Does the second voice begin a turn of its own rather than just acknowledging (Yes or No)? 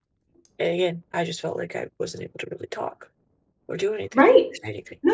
Yes